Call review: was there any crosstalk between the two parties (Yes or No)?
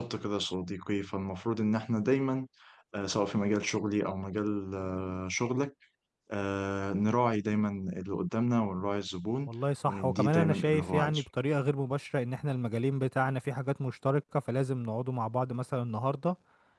Yes